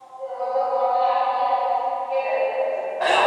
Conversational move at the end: taking over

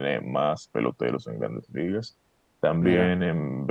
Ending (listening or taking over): listening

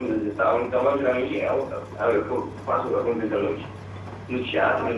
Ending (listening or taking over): listening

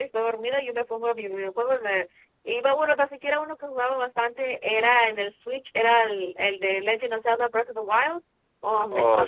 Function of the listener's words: listening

